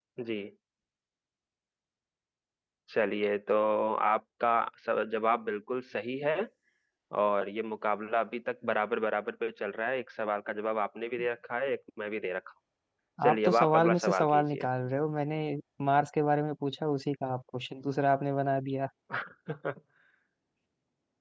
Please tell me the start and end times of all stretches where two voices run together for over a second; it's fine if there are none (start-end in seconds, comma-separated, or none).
13.2-14.7